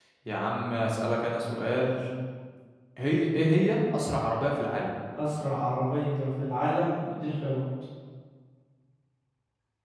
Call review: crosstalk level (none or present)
none